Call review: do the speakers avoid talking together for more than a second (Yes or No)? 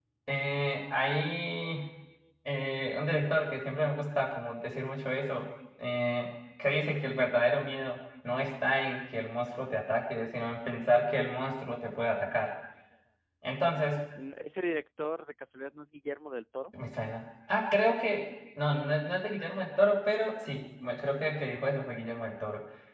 Yes